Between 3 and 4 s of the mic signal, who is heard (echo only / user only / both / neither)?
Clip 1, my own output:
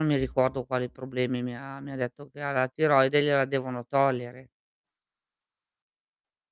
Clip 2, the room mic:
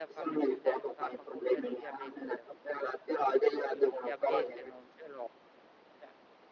both